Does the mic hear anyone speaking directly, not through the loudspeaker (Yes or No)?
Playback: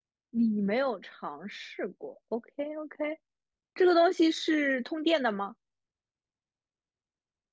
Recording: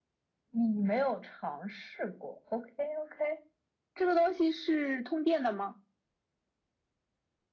No